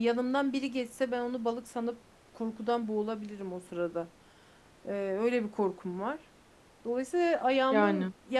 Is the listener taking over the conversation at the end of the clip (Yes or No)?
No